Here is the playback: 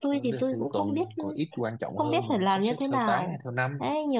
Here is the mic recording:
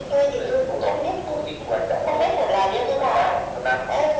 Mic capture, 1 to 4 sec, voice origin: echo only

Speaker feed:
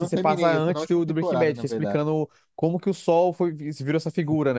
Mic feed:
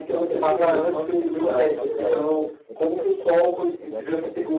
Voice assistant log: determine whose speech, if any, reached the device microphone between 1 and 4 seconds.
both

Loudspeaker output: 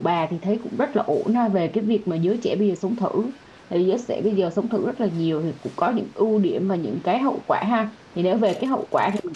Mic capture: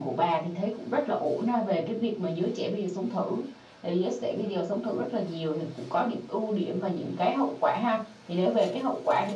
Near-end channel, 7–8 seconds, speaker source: echo only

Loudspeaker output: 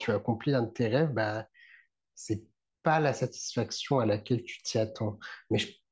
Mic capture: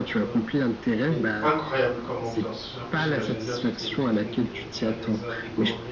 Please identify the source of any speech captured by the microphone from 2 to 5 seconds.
both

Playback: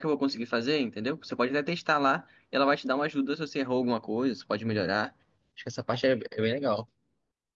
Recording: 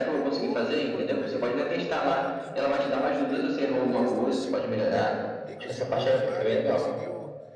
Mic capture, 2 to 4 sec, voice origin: both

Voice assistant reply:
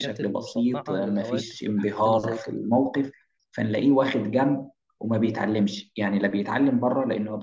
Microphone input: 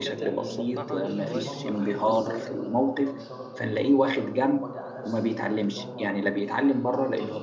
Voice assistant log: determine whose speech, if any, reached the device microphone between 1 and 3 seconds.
both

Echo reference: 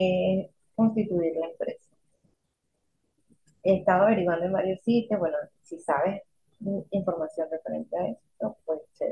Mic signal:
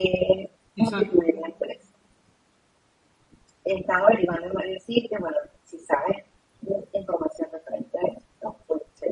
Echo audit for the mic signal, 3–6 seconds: echo only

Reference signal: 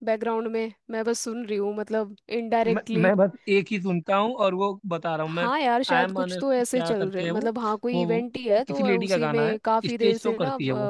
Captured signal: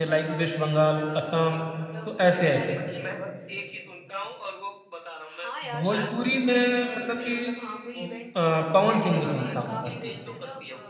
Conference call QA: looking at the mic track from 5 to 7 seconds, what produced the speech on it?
both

